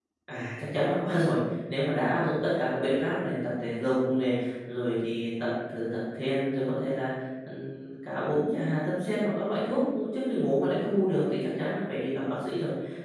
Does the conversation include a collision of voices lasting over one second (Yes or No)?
No